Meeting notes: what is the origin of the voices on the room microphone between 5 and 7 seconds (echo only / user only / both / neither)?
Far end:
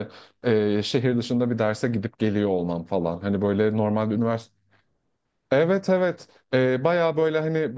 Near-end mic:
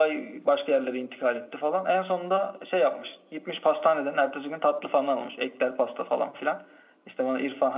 user only